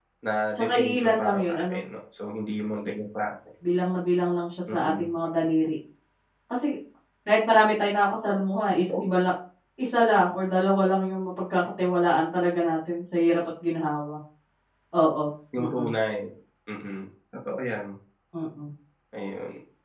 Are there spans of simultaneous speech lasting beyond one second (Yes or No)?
Yes